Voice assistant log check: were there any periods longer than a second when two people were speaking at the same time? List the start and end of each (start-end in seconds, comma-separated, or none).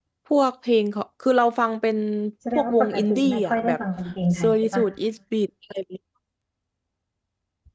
2.6-3.8